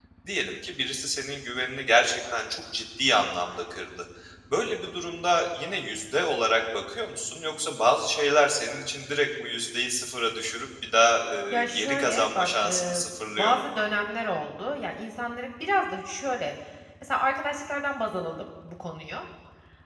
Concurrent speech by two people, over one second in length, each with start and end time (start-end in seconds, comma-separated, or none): 11.5-13.0